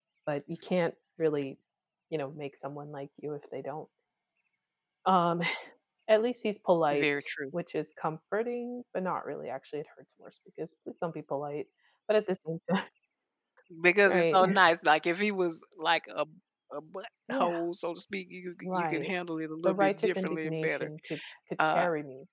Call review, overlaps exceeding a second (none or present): present